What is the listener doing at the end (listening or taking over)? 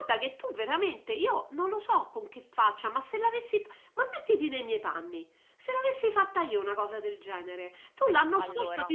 listening